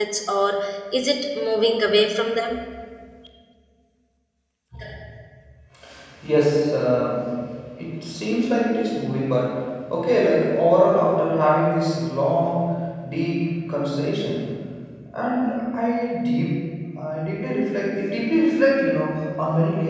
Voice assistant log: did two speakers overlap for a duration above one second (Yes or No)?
No